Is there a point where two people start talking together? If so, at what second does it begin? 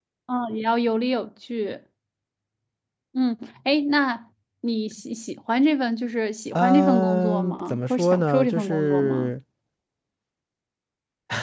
6.6 s

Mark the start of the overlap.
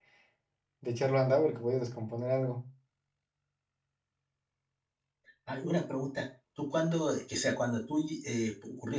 none

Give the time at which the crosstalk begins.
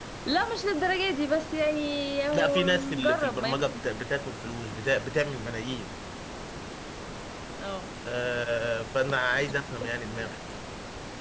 2.3 s

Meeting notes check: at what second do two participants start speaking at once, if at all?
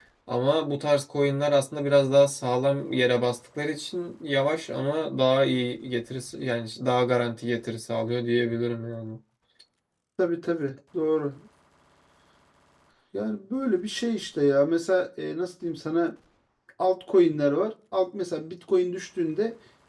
none

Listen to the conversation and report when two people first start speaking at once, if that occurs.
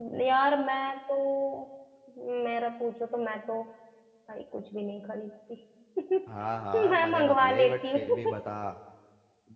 6.9 s

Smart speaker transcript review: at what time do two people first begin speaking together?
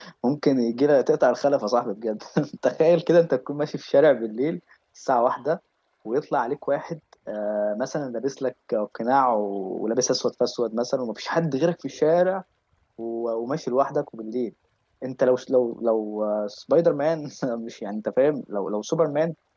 none

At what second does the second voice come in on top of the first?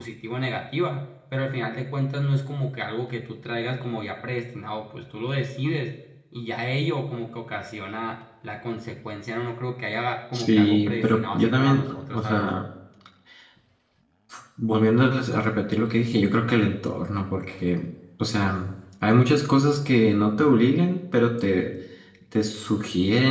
10.3 s

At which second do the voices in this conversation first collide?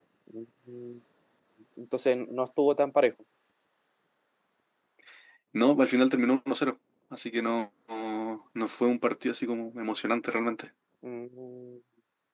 none

